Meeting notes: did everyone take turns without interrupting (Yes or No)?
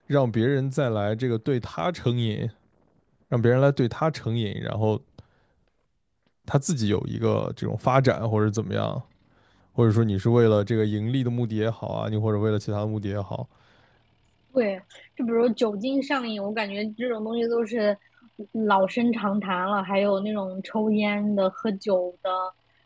Yes